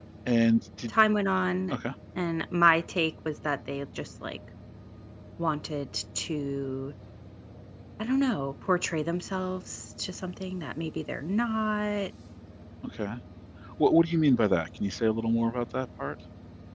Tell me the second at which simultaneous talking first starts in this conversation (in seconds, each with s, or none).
none